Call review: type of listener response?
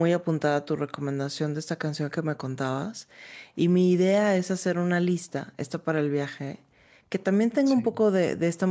listening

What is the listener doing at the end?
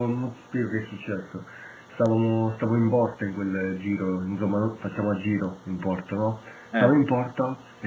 listening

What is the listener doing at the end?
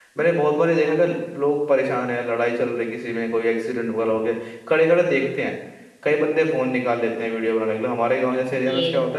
listening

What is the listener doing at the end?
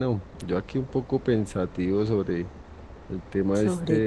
listening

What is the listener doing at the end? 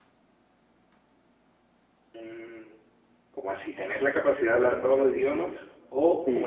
taking over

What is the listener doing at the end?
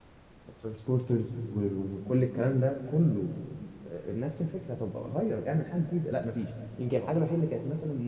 listening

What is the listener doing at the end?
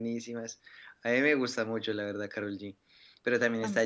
listening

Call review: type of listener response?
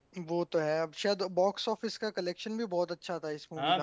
taking over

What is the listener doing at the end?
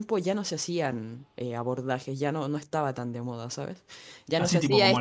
taking over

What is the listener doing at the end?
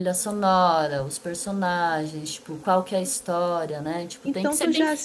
taking over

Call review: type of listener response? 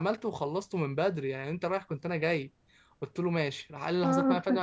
listening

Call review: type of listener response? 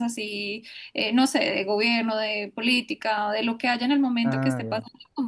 listening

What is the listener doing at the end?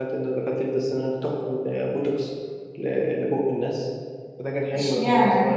taking over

